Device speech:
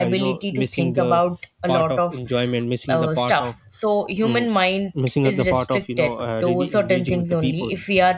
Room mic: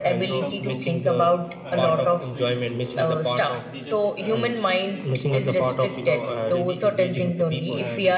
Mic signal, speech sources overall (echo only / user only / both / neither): both